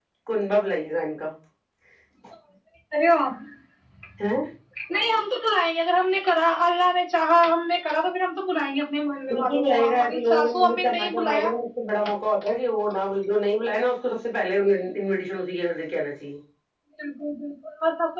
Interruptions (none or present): present